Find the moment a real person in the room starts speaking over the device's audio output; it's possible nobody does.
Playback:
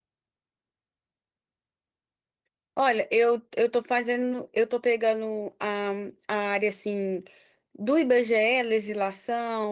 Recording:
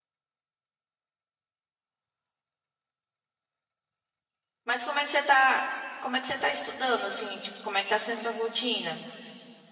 4.7 s

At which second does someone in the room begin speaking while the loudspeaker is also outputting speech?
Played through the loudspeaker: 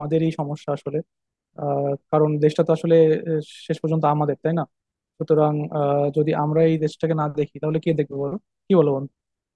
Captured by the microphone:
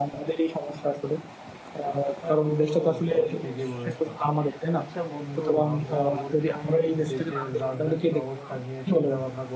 2.2 s

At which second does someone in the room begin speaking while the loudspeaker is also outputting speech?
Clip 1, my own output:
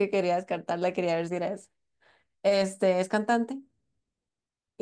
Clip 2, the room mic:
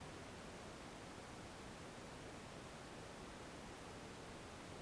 none

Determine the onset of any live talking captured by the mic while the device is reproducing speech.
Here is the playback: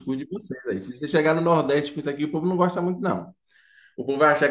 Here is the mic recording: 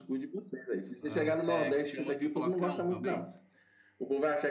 1.0 s

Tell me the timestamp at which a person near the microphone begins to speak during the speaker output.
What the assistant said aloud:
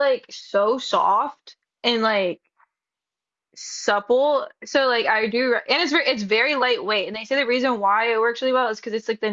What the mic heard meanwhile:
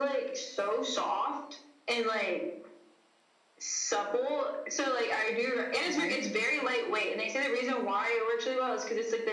5.8 s

